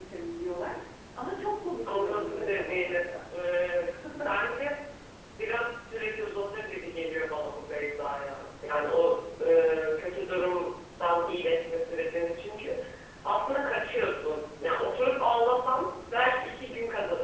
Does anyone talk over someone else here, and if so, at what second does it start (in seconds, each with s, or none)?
1.9 s